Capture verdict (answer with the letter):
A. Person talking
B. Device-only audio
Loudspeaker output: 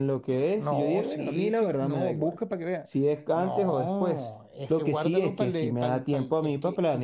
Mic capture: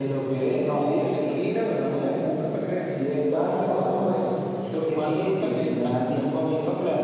B